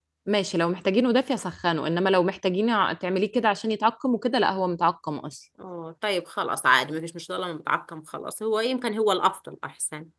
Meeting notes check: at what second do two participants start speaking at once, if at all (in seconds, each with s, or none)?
none